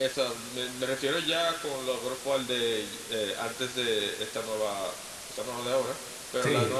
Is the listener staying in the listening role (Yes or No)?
Yes